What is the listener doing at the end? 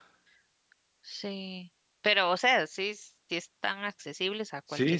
taking over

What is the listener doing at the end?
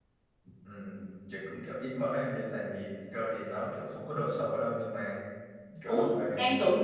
taking over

